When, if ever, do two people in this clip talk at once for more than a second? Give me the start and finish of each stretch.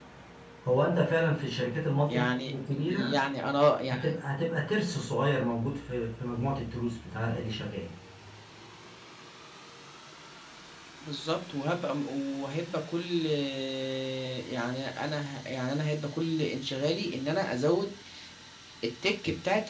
none

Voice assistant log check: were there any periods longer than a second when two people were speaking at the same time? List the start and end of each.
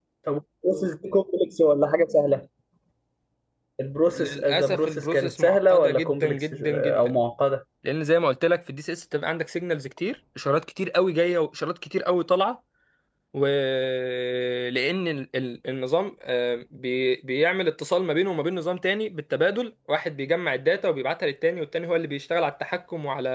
4.0-7.2

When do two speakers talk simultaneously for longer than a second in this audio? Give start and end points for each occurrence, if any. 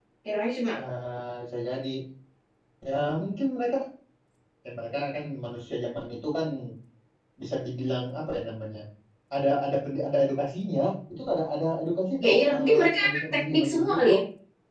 12.2-14.1

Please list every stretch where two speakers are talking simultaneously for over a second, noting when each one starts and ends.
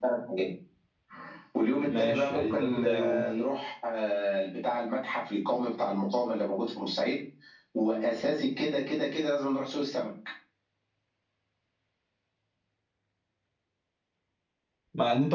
1.9-3.2

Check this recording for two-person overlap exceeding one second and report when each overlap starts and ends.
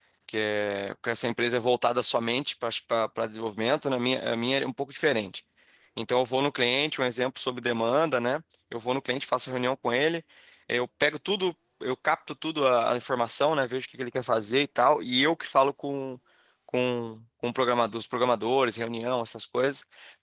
none

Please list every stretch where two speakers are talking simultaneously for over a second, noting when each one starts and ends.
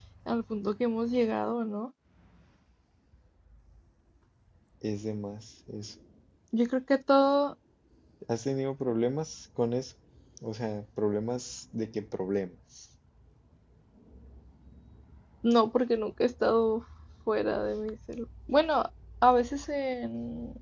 none

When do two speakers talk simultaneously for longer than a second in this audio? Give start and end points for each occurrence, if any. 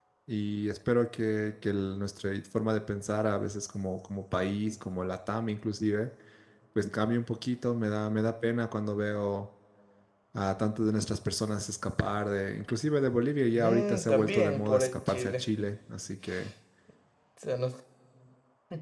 13.6-15.4

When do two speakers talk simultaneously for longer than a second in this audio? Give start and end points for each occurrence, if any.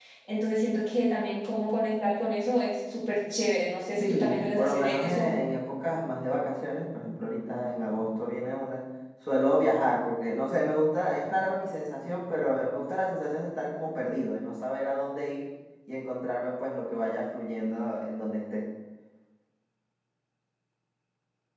4.0-5.3

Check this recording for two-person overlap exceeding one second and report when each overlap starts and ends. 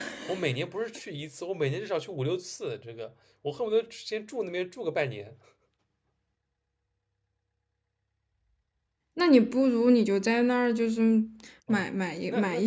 none

